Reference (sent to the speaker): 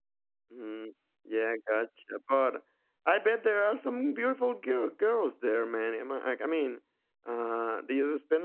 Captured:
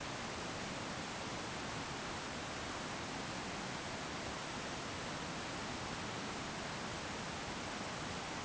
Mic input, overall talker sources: neither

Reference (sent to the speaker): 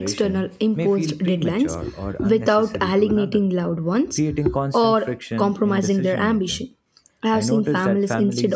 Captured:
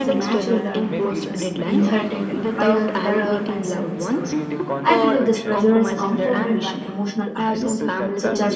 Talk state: both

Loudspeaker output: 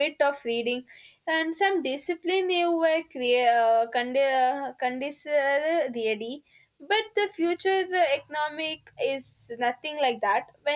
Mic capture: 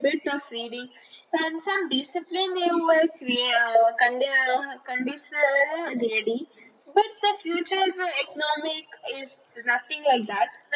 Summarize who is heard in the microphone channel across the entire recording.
echo only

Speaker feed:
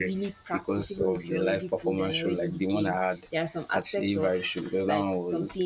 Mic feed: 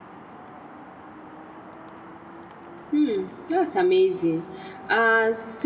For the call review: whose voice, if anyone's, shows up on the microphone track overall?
user only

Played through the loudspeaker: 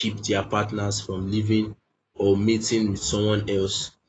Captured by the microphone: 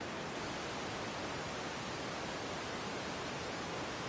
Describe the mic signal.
neither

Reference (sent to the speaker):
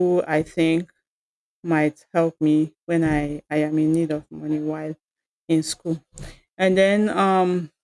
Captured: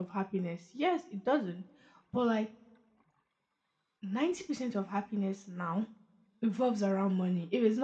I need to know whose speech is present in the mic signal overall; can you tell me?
user only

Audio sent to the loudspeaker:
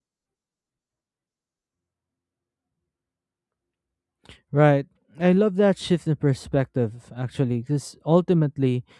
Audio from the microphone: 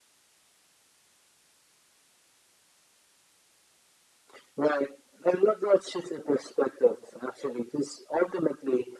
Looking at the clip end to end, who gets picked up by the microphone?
echo only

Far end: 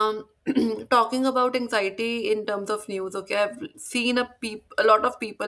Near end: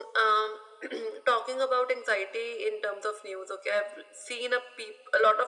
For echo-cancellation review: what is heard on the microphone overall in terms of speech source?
echo only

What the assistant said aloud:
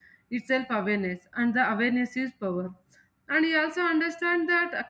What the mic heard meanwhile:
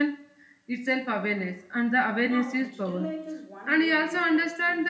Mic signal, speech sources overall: both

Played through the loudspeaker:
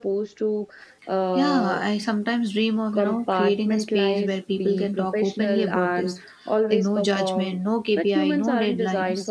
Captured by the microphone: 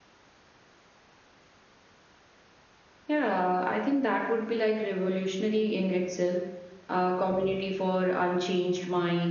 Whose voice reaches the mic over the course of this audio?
user only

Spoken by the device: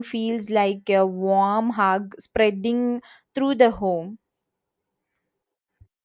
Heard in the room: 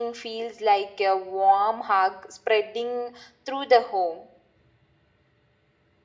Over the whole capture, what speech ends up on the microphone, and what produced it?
echo only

